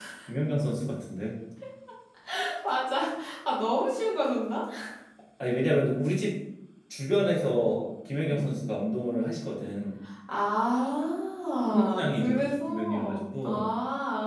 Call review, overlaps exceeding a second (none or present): present